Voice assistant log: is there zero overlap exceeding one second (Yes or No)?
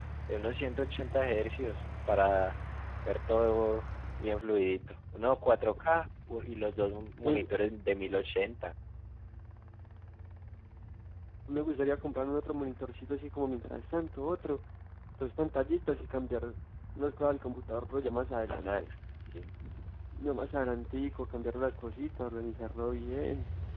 Yes